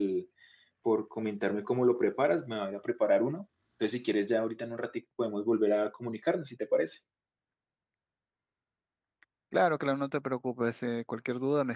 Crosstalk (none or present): none